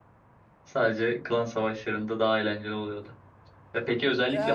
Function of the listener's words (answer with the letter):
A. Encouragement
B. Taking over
A